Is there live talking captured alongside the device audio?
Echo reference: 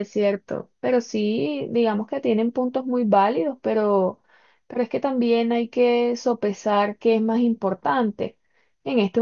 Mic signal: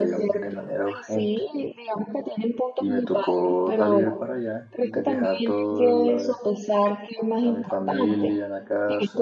Yes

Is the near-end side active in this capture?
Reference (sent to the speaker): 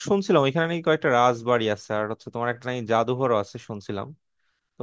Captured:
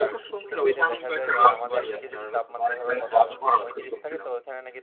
Yes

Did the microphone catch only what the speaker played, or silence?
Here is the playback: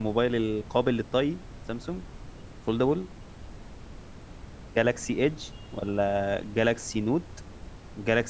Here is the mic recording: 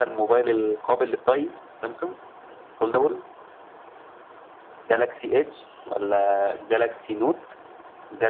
Yes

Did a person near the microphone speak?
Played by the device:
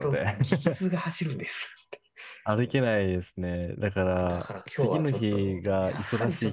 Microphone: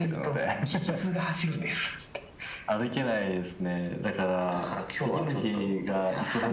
No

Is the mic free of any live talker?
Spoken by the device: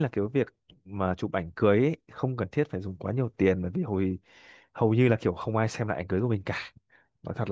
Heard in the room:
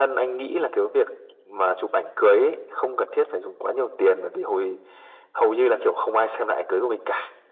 Yes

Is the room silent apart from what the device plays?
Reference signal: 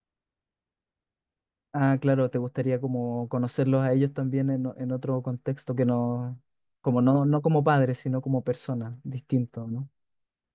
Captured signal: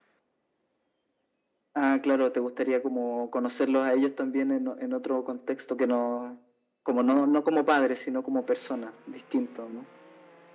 Yes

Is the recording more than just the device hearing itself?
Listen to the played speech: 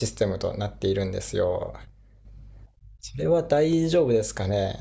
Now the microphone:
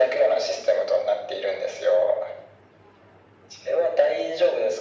No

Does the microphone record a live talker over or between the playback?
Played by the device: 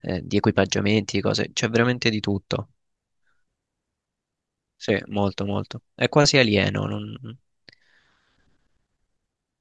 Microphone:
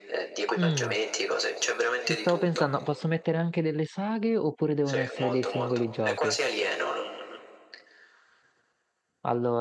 Yes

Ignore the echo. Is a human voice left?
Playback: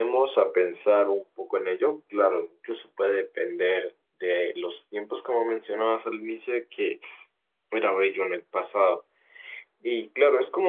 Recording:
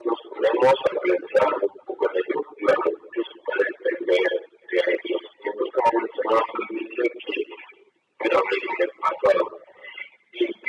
No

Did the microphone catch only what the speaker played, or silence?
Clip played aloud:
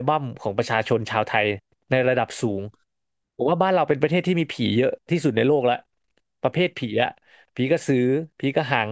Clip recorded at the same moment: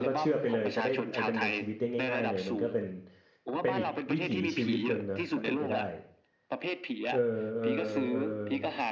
No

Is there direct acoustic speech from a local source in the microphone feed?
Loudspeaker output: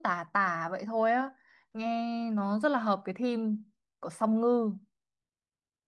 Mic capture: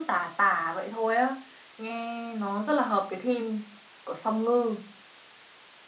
No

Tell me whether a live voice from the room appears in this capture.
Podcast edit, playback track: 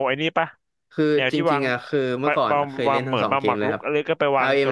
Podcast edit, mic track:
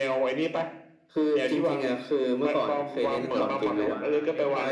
Yes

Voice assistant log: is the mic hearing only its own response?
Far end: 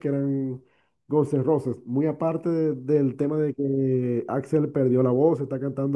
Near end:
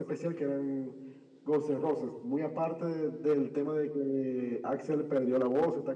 Yes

